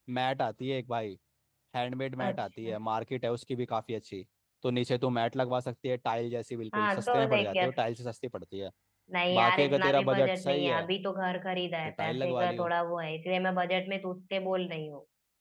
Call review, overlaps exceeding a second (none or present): present